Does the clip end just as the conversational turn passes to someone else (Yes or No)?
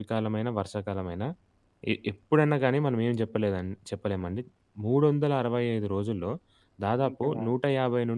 No